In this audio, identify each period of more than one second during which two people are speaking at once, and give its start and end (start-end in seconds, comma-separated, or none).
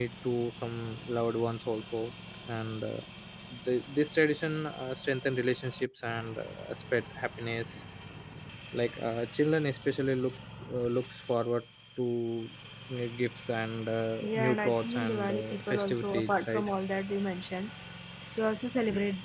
14.2-16.7